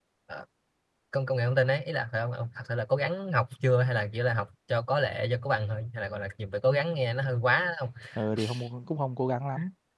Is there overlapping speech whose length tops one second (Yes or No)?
No